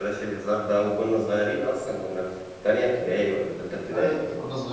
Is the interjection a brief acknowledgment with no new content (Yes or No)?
No